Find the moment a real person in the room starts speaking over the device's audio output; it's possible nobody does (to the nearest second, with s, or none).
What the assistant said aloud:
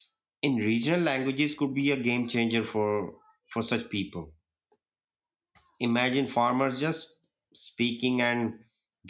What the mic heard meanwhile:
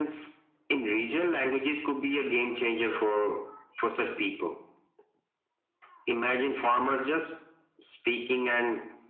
none